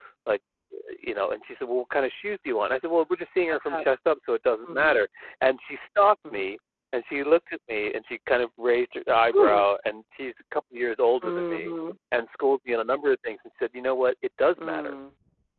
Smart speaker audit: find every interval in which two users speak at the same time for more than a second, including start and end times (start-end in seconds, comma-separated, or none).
none